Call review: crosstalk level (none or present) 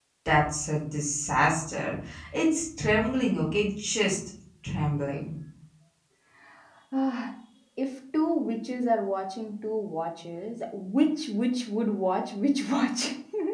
none